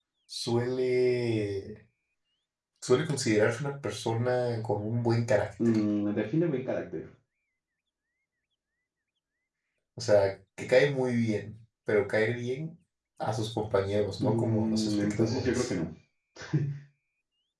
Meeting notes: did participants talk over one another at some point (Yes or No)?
Yes